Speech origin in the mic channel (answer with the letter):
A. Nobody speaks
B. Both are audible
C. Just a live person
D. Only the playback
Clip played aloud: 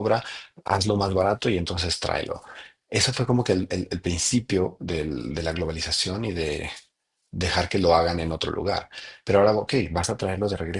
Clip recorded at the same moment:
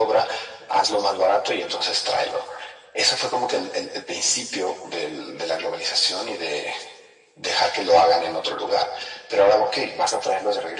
D